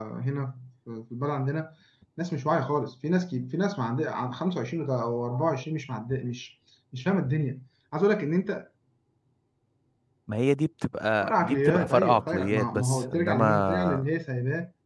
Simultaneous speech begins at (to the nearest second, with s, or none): 11 s